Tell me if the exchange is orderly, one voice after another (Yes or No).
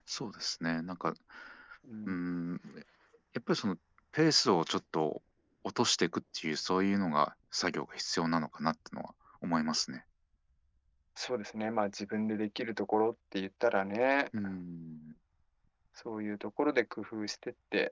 Yes